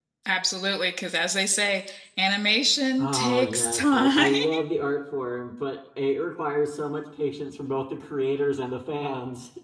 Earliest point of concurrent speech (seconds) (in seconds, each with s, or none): 3.0 s